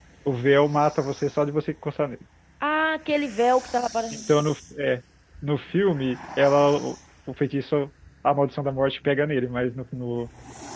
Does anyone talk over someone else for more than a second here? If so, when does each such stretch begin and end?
none

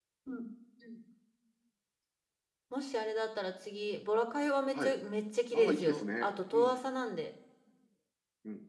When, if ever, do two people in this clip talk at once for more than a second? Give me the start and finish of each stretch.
5.5-6.8

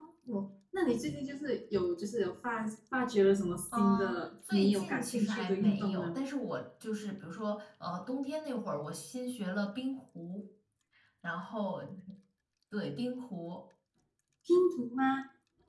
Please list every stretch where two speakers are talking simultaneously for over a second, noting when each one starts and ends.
3.7-6.2

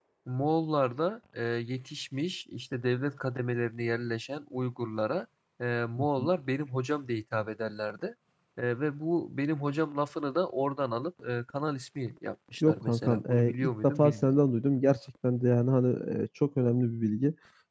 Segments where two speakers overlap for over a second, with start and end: 12.6-14.3

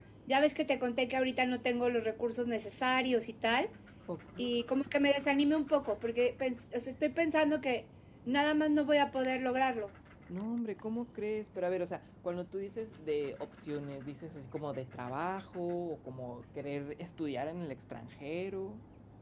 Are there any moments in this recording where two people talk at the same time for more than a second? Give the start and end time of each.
none

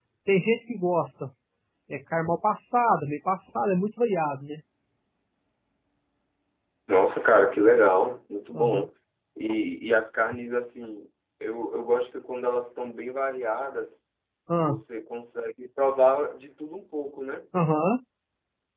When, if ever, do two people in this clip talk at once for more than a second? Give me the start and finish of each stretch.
none

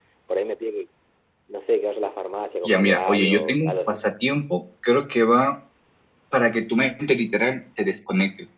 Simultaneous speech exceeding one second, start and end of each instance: 2.6-4.0

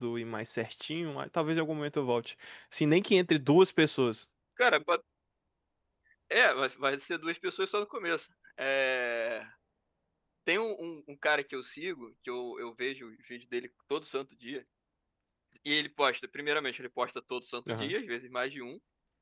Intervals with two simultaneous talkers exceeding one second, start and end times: none

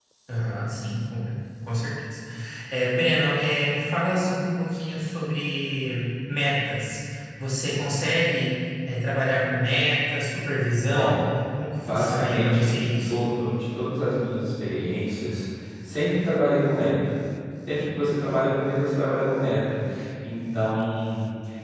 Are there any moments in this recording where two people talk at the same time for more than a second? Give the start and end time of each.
11.7-13.1

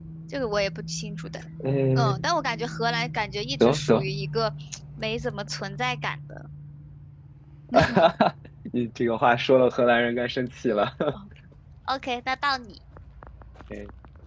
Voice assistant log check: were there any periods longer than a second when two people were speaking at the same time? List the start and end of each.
none

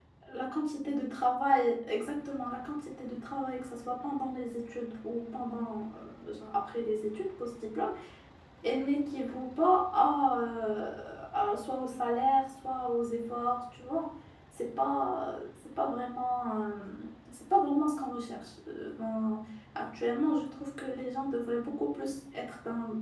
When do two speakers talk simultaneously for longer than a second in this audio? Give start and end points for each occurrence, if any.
none

